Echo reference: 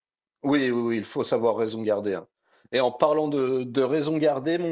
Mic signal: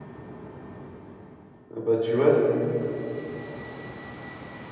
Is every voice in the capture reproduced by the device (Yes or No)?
No